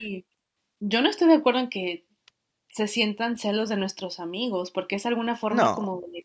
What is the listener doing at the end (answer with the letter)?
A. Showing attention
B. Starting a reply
A